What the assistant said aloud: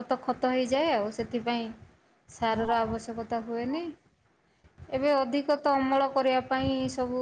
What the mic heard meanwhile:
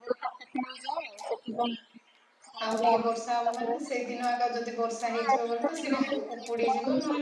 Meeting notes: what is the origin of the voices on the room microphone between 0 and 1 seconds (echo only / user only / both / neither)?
echo only